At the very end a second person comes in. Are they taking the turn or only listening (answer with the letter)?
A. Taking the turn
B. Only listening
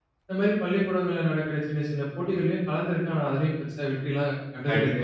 A